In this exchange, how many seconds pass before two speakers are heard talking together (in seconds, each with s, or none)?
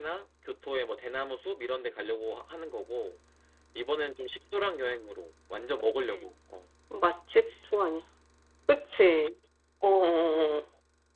none